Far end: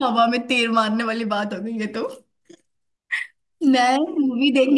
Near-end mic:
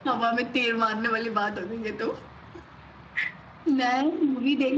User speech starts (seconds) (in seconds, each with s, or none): none